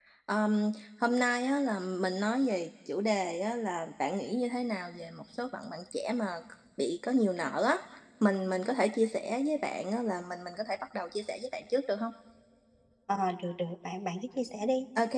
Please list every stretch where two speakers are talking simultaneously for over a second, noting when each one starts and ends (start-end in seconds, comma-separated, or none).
none